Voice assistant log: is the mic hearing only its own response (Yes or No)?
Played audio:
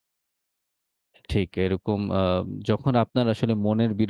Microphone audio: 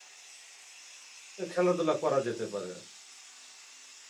No